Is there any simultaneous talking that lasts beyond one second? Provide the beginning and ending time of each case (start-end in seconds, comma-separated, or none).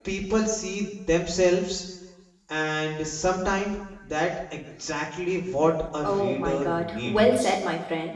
6.0-7.5